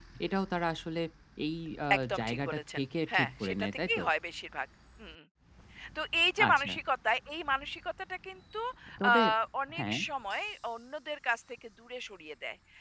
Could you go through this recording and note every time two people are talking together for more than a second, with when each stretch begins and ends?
2.0-4.0

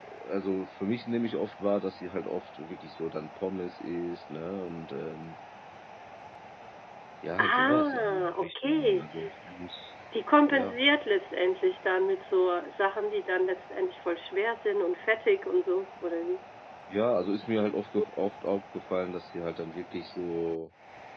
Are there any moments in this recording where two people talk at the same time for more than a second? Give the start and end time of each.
7.4-9.1

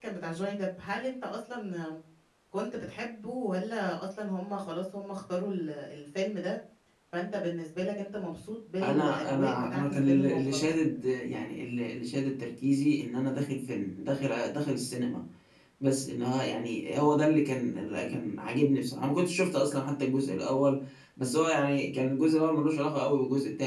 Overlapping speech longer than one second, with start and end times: 8.8-10.7

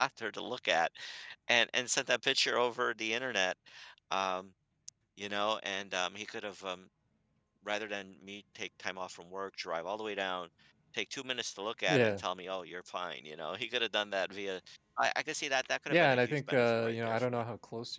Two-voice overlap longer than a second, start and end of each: 15.9-17.4

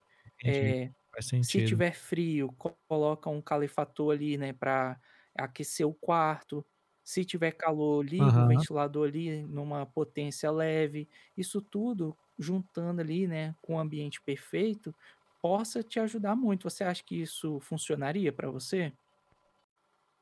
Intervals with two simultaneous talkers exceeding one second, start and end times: none

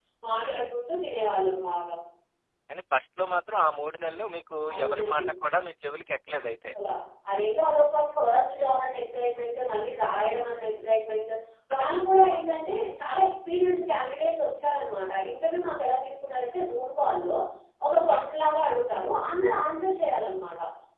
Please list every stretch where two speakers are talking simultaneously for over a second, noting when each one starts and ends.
none

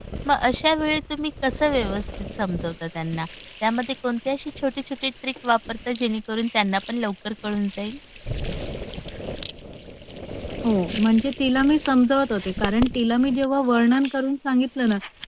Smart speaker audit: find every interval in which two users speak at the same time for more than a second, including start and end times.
none

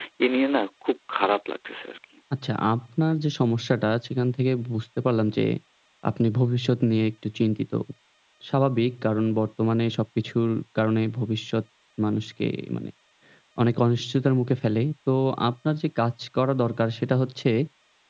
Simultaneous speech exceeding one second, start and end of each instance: none

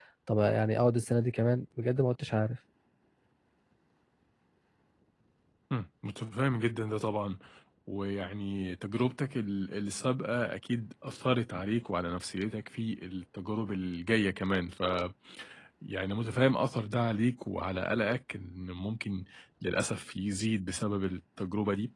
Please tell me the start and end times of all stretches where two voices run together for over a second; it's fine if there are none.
none

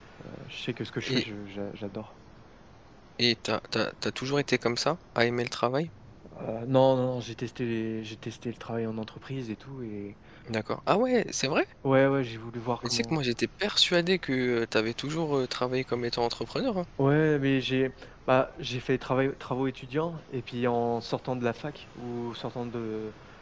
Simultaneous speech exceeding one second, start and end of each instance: none

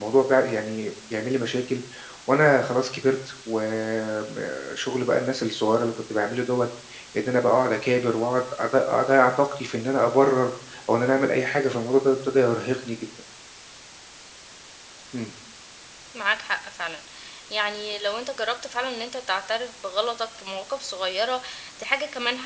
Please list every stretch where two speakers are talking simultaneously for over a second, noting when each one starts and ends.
none

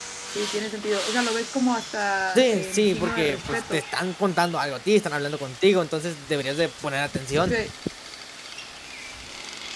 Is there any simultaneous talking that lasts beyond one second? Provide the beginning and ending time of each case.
2.4-3.8

